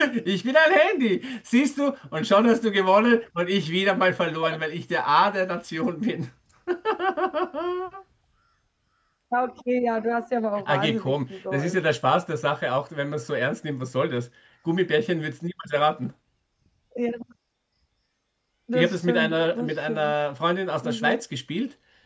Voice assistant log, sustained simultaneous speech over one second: present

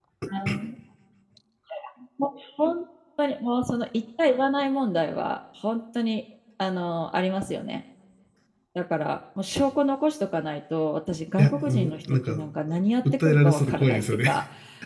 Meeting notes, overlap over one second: present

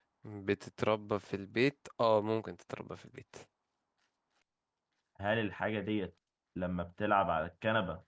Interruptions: none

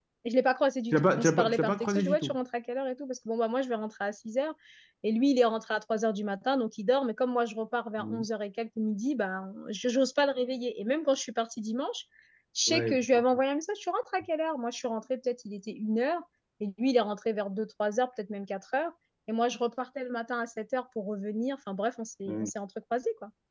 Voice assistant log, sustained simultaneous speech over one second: present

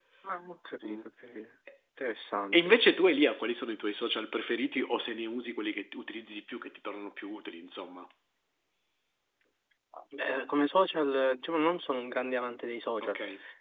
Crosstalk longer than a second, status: none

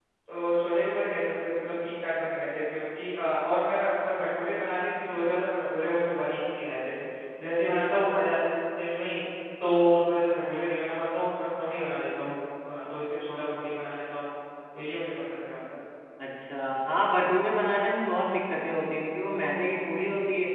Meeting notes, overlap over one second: none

